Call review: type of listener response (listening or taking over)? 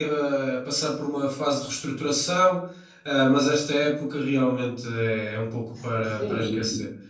taking over